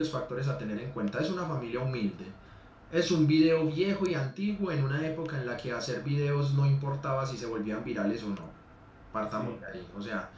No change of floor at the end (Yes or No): Yes